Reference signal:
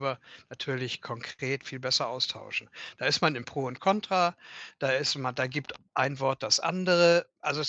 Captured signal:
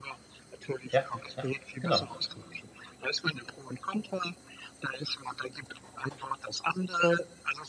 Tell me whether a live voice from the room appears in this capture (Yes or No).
Yes